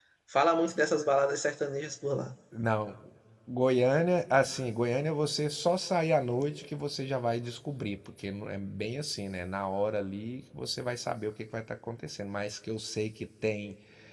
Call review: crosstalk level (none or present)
none